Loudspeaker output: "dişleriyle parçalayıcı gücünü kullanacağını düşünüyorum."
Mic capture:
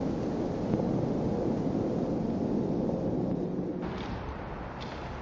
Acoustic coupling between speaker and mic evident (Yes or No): No